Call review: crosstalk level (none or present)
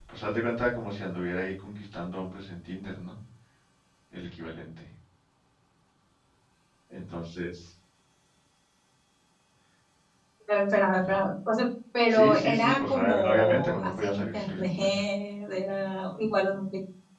present